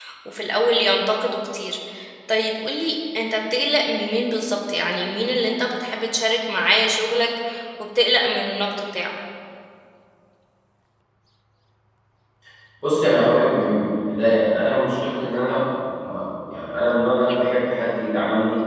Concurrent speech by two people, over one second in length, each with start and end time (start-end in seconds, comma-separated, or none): none